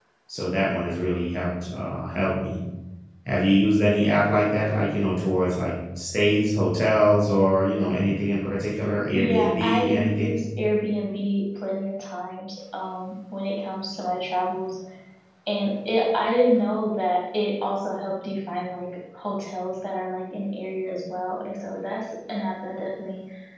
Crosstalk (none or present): present